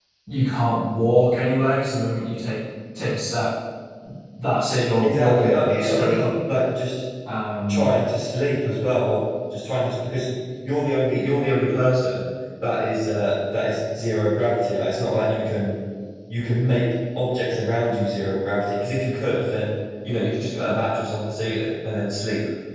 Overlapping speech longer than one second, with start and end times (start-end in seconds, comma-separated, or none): 5.0-6.3